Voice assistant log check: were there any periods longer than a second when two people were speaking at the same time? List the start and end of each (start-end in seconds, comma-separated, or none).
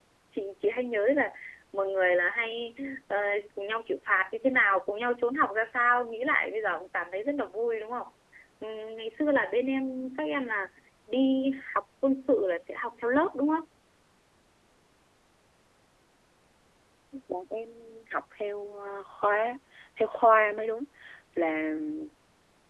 none